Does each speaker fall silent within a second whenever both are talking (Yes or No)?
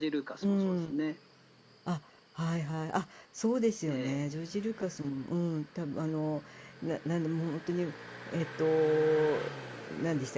Yes